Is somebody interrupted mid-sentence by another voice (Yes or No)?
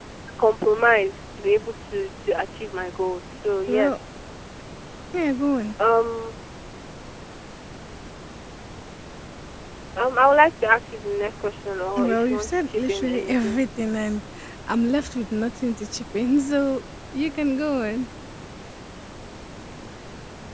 Yes